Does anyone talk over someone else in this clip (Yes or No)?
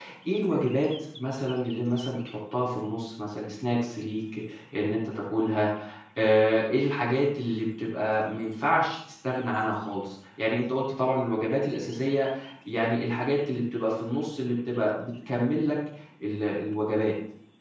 No